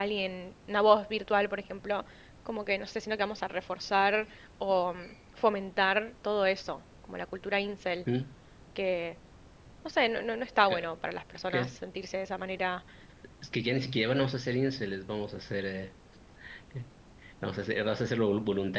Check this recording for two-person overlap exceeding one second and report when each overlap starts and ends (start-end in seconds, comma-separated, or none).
none